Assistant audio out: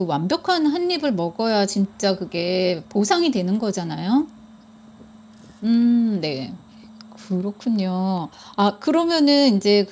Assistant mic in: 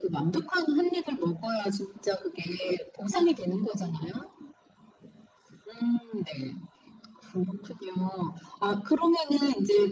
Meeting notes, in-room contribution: none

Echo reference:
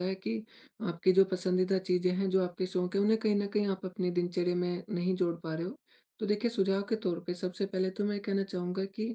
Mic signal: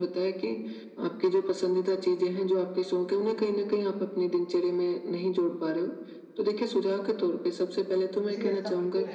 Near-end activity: present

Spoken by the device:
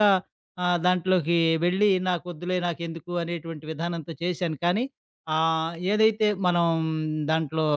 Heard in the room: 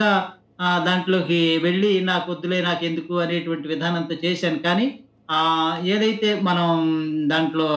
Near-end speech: none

